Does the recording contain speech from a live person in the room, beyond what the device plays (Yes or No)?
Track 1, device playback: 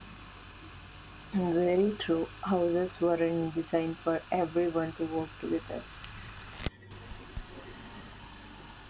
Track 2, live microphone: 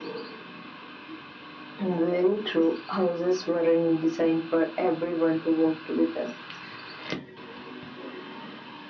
No